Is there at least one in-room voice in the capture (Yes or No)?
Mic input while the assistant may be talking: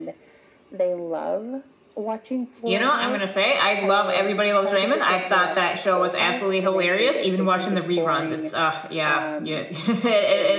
Yes